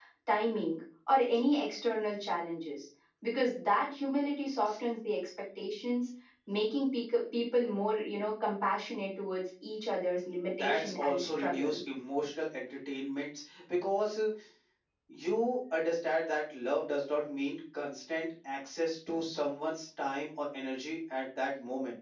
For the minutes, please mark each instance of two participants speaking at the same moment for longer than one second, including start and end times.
10.5-11.8

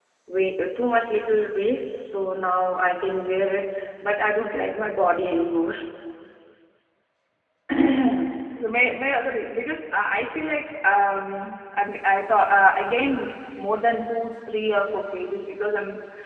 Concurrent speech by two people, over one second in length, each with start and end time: none

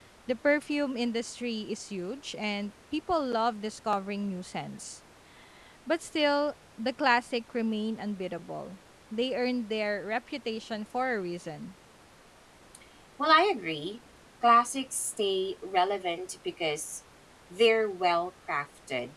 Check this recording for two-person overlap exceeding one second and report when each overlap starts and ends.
none

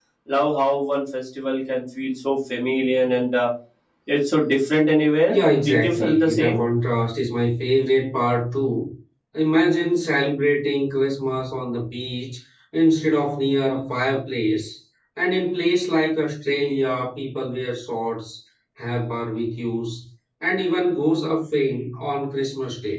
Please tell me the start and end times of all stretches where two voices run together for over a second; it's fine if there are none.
5.3-6.6

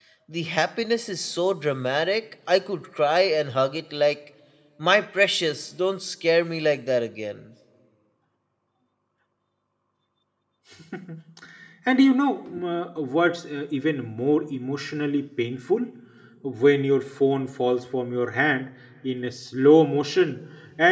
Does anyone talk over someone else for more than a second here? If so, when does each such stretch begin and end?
none

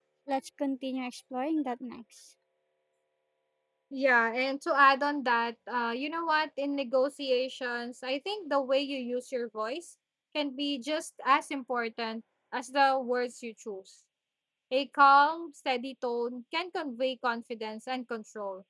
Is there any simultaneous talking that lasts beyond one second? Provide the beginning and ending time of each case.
none

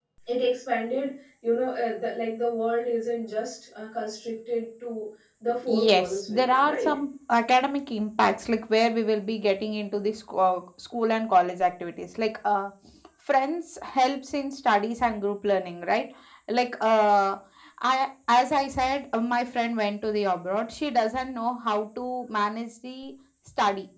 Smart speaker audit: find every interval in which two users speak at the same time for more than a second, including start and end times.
5.7-7.0

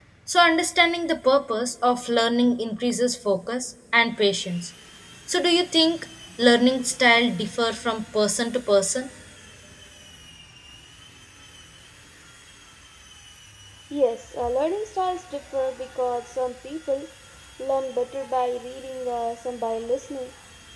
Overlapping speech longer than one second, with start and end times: none

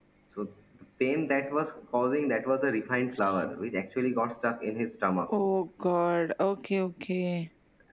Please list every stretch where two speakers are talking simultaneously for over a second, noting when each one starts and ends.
none

